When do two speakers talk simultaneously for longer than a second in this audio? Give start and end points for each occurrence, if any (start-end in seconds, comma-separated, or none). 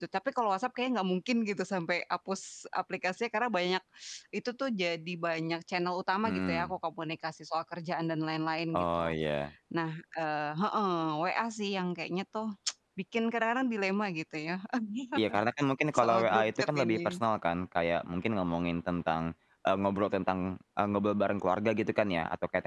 16.0-17.2